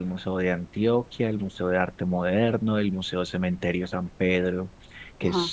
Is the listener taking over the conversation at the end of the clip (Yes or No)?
No